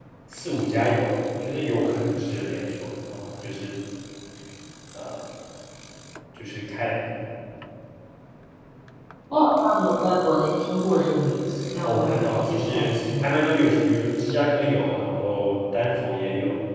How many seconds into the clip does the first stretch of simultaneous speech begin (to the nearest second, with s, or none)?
12 s